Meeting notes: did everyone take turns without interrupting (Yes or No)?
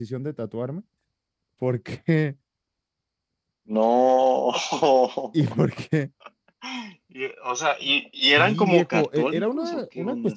No